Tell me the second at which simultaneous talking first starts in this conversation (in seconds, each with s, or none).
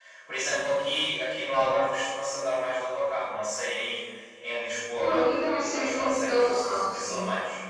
5.0 s